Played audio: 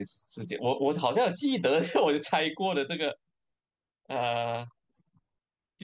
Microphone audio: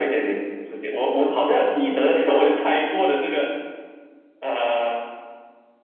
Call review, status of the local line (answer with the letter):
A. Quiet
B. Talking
A